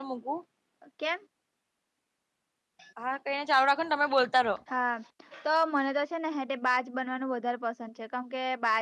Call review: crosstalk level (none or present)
none